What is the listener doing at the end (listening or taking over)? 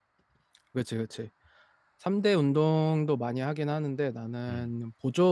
listening